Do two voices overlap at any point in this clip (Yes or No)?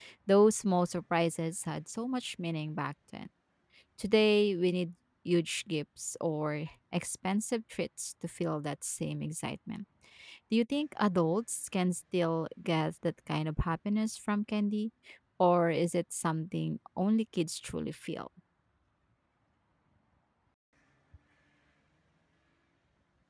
No